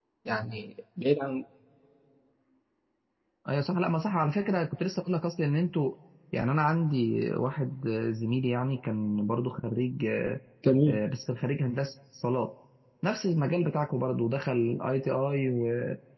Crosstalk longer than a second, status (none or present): none